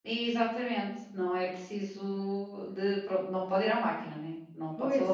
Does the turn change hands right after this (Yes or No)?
Yes